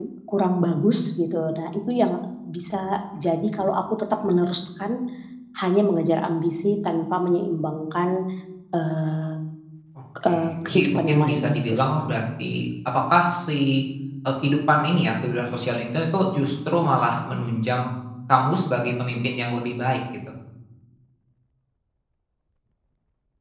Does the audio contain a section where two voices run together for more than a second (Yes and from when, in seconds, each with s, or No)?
Yes, from 10.3 s